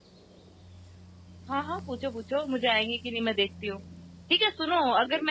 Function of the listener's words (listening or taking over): listening